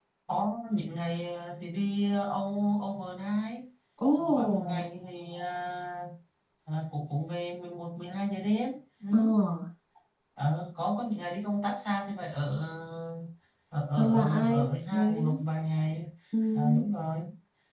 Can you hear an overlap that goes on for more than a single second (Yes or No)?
Yes